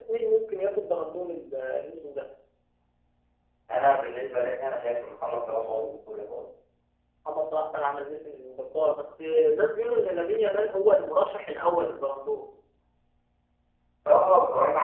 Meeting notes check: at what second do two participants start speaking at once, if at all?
none

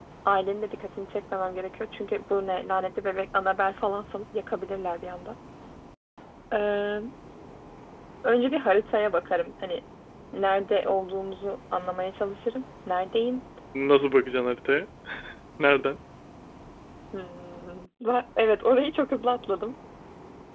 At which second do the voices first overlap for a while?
none

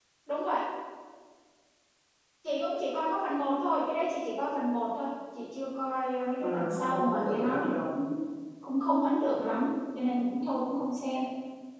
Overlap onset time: 6.4 s

